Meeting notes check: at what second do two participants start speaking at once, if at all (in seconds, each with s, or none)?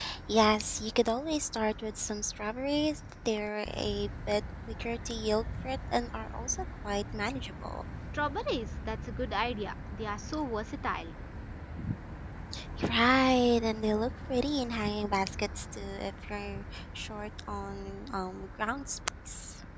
none